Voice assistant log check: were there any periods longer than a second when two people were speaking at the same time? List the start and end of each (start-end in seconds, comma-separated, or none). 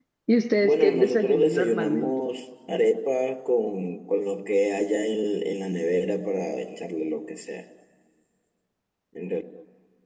0.6-2.1